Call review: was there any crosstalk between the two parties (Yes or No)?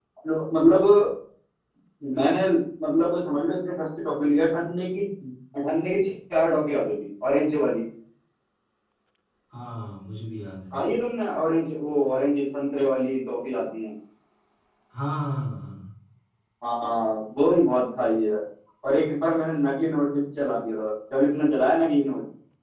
No